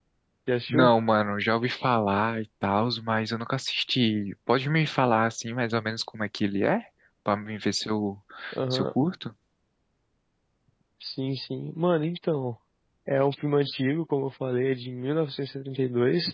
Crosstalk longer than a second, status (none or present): none